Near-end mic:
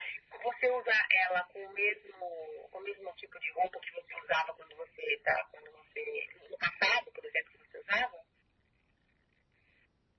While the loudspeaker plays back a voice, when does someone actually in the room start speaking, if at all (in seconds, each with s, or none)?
none